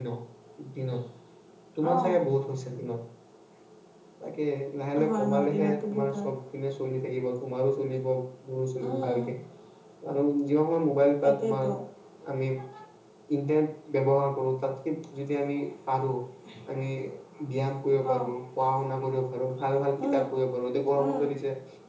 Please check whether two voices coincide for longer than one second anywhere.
Yes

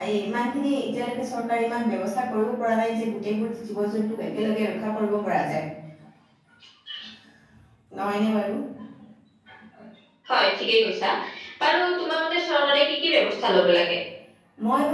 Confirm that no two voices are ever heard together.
Yes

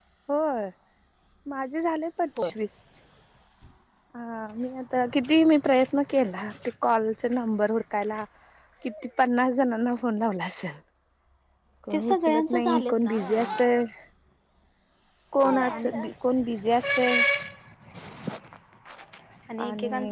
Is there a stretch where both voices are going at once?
Yes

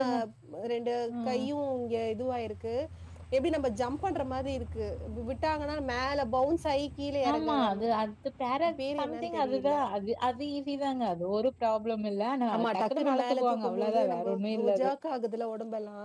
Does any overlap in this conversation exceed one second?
Yes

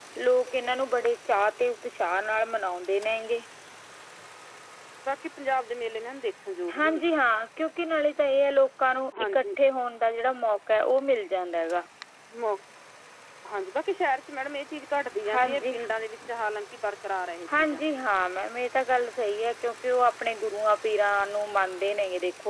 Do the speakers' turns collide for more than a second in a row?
No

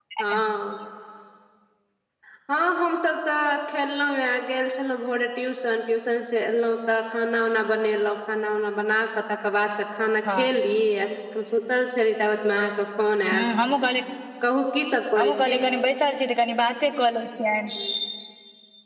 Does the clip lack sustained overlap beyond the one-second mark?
Yes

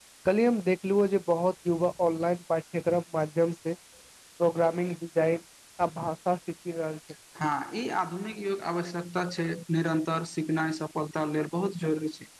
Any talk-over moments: No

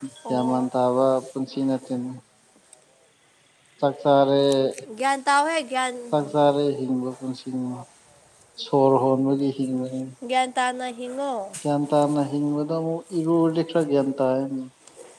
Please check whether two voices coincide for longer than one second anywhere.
No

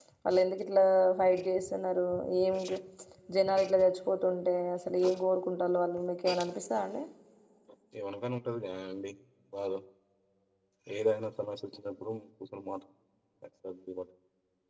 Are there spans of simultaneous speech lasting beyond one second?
No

